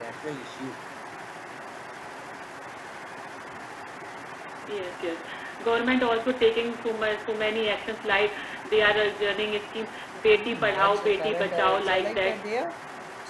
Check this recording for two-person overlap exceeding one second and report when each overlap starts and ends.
10.3-12.4

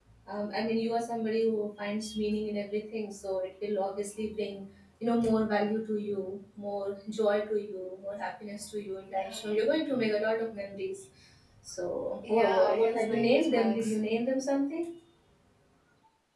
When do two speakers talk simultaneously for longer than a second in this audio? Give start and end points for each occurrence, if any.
12.3-14.0

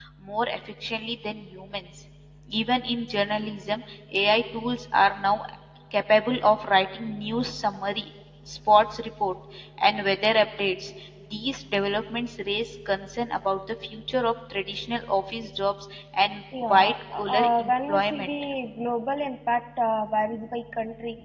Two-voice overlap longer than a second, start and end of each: 16.7-18.3

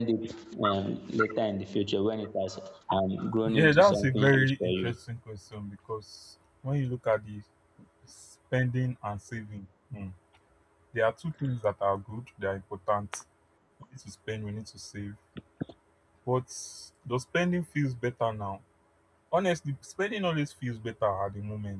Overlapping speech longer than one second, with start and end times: 3.5-4.9

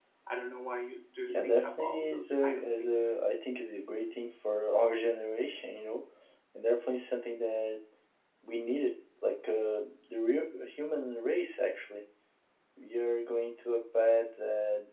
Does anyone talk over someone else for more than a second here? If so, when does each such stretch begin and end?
1.2-3.1

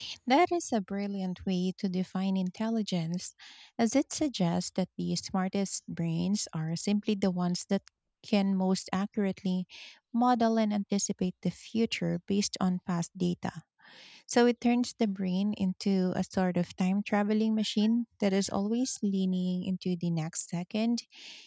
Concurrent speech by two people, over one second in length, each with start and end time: none

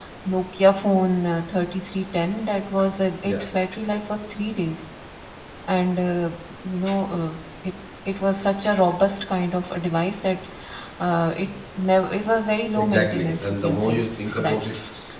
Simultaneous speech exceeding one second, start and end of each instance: 12.7-14.0

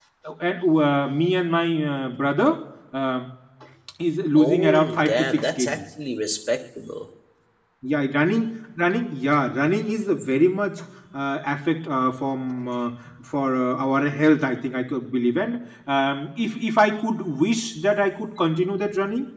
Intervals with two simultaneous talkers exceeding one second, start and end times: 4.3-5.8

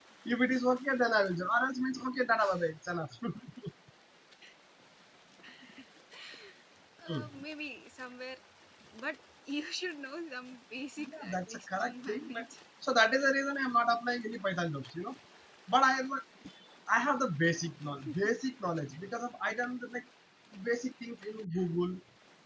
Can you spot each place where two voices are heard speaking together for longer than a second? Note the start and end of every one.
11.0-12.4

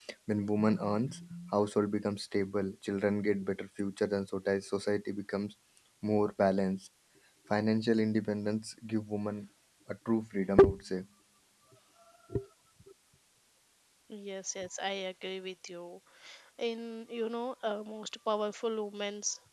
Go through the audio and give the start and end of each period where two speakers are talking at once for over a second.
none

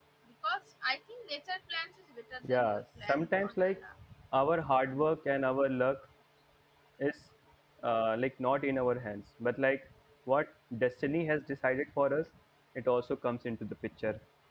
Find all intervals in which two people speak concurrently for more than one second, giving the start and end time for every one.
2.5-3.8

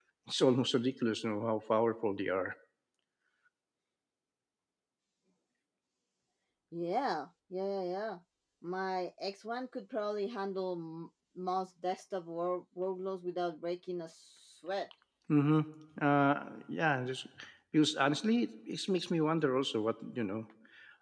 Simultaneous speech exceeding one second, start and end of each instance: none

